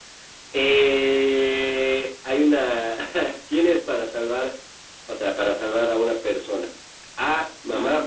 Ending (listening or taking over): listening